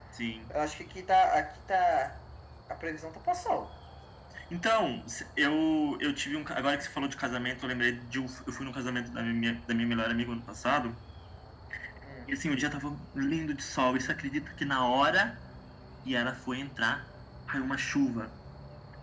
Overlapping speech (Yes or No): No